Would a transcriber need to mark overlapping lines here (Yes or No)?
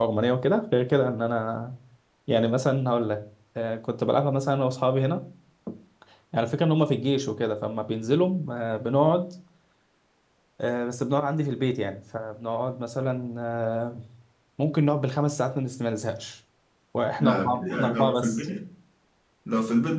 Yes